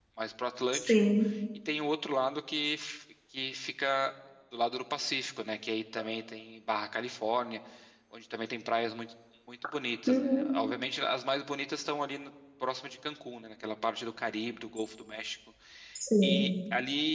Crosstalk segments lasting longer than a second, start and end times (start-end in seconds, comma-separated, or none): none